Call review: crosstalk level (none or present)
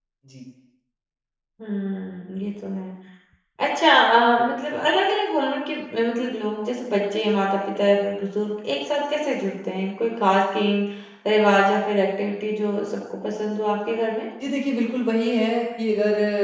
none